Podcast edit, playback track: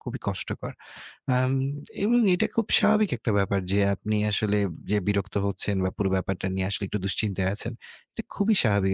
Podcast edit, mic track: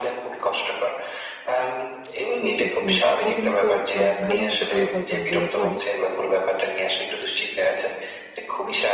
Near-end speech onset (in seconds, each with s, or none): 2.4 s